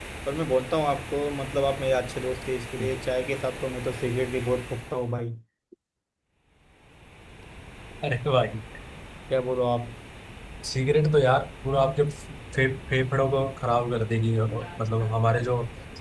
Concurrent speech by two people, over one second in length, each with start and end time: none

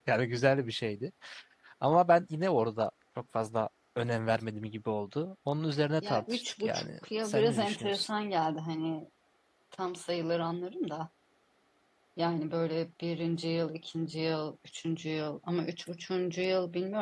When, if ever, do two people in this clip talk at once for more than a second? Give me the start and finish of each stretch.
6.0-8.1

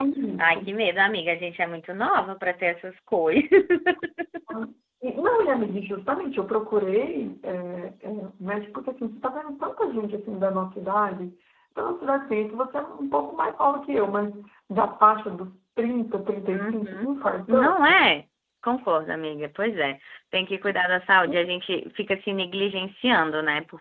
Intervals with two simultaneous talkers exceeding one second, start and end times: none

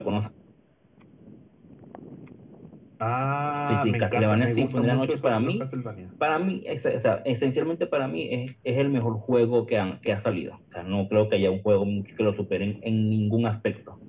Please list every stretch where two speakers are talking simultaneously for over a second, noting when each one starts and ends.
3.7-5.6

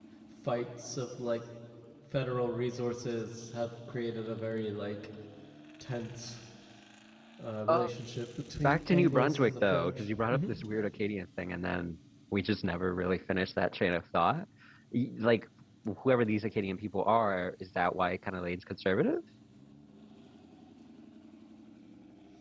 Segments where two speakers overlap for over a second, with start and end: 8.6-10.5

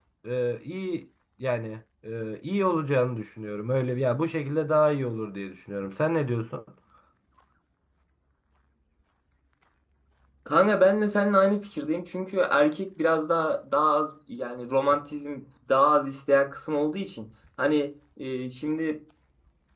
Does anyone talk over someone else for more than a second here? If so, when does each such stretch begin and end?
none

